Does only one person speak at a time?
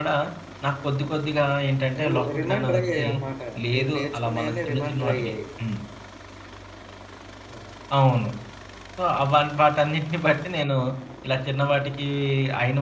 No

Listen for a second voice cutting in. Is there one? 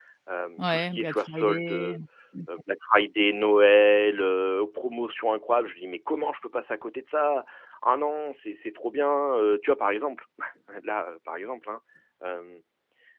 Yes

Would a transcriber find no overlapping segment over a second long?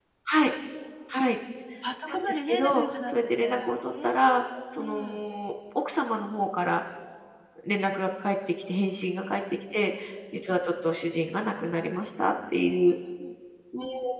No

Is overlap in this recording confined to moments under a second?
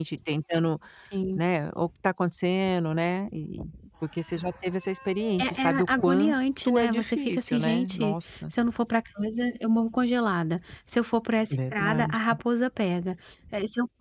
No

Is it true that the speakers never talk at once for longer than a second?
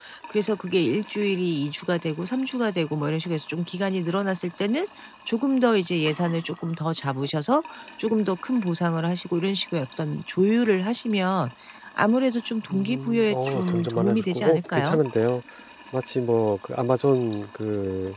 No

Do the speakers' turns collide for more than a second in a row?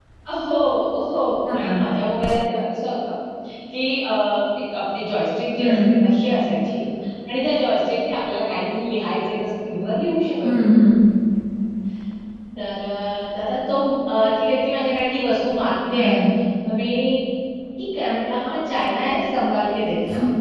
No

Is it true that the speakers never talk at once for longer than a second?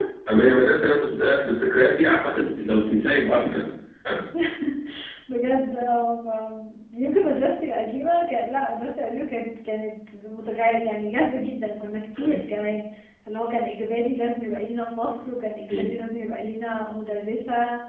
Yes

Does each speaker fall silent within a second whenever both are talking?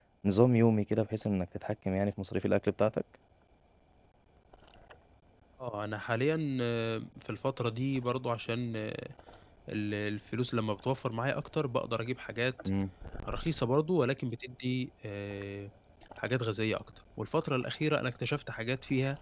Yes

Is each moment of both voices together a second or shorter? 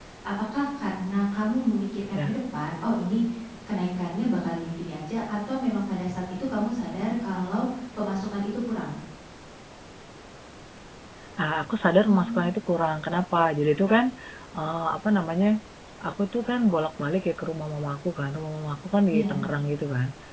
Yes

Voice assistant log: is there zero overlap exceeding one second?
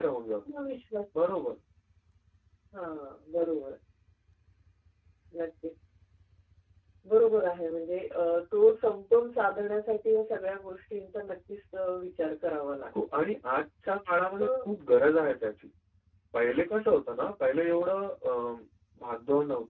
Yes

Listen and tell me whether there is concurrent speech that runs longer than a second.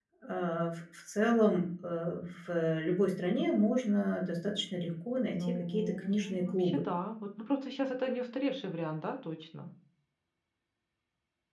Yes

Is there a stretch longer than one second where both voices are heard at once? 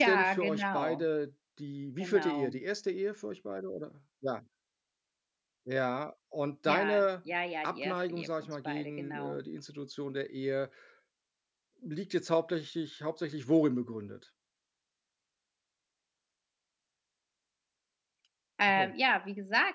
Yes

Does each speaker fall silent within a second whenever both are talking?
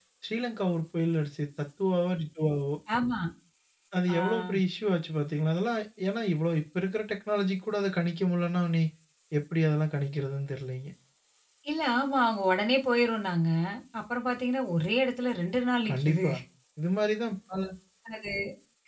Yes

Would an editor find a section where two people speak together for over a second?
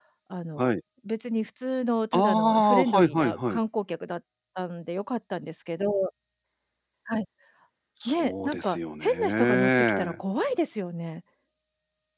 Yes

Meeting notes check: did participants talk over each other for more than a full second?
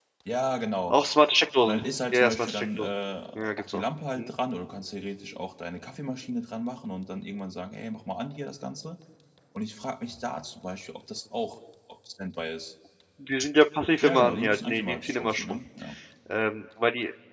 Yes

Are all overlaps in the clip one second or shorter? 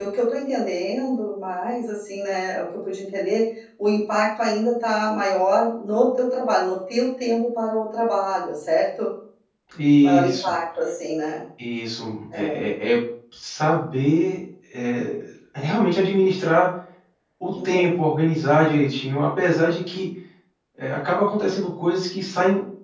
Yes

